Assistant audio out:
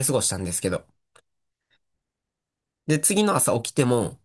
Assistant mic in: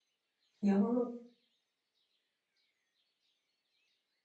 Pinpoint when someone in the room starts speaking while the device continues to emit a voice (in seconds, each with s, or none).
0.6 s